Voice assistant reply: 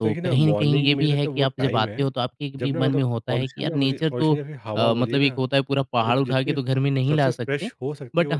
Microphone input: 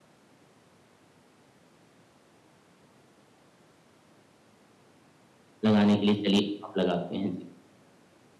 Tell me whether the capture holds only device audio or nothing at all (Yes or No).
No